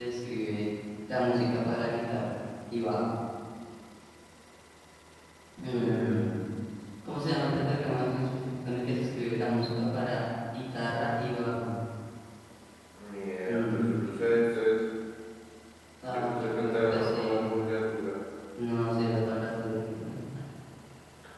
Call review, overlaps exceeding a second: present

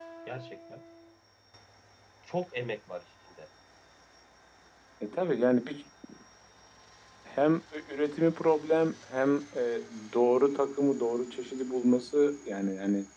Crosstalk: none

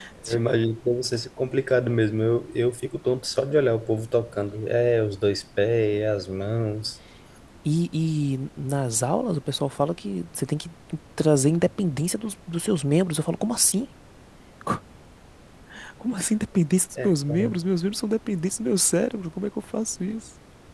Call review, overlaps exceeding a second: none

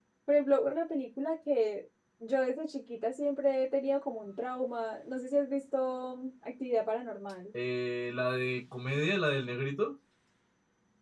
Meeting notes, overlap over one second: none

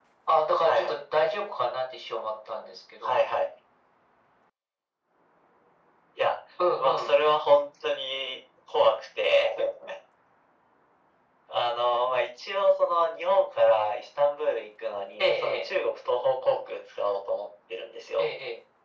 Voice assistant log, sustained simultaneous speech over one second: none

